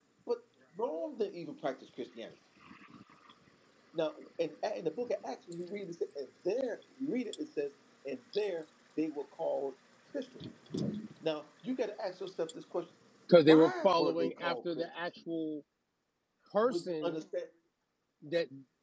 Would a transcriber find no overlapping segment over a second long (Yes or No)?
No